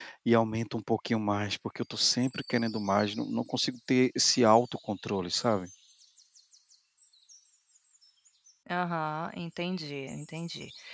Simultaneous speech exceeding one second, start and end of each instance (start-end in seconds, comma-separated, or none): none